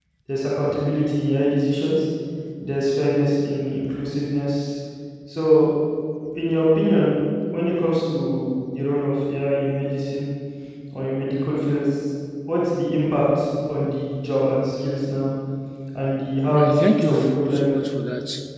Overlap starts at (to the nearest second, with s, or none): 16 s